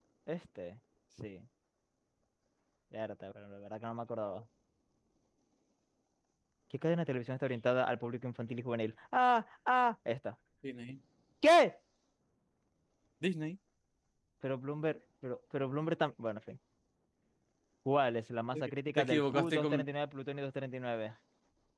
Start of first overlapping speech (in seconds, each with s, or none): 18.5 s